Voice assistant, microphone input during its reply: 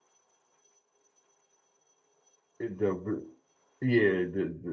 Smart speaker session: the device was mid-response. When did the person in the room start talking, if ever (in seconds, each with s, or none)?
2.6 s